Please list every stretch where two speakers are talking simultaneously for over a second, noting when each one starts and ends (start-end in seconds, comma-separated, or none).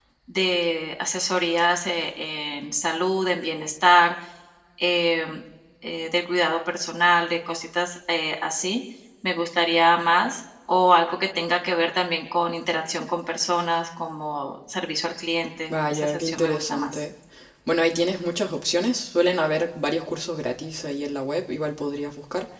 15.7-17.0